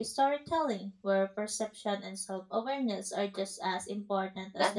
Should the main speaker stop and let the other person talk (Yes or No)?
Yes